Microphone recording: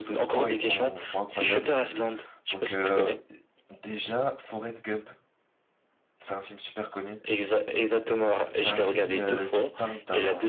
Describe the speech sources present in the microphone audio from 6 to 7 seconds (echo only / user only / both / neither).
user only